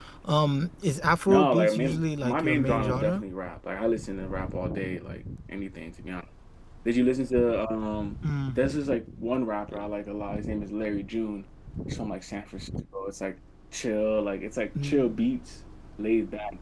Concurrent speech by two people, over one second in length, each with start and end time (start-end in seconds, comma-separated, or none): 1.3-3.2